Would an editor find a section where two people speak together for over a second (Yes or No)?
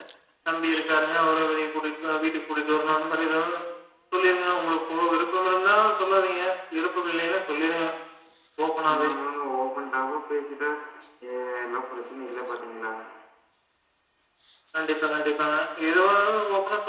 No